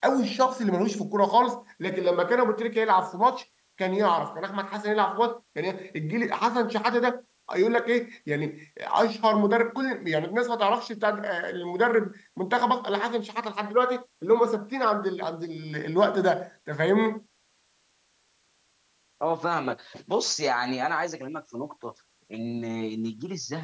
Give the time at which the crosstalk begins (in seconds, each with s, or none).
none